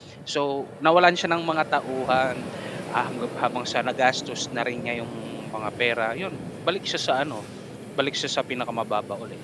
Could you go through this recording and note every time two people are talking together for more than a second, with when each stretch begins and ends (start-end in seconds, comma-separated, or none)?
none